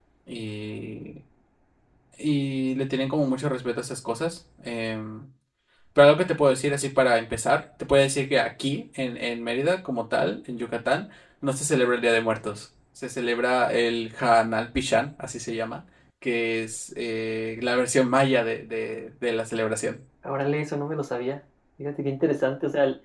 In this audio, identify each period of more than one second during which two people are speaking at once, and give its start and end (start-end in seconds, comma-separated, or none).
none